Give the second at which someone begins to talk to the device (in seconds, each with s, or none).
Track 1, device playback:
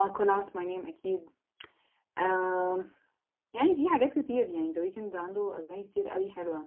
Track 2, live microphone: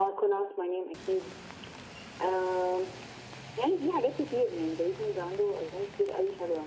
none